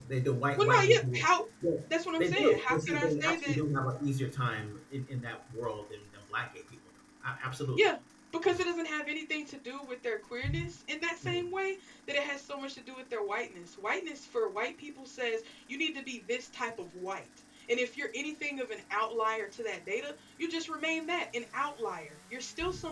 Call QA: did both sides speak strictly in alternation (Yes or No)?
No